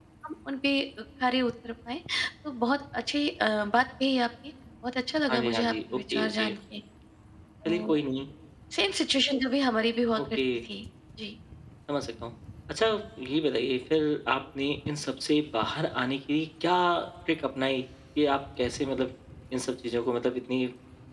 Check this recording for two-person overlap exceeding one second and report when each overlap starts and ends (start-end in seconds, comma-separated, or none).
5.3-6.5